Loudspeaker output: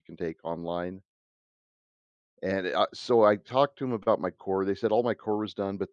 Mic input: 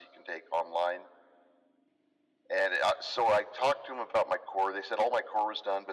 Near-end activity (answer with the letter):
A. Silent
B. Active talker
A